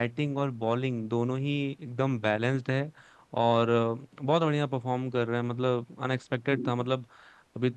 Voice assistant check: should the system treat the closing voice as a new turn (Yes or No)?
No